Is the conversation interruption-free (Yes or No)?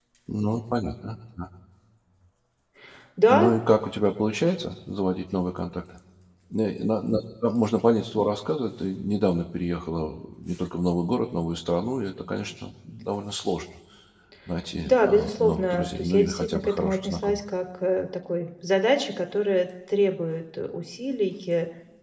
No